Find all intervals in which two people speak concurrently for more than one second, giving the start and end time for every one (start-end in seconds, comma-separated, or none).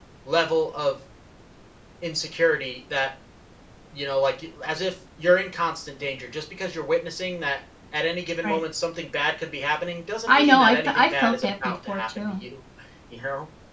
10.3-12.4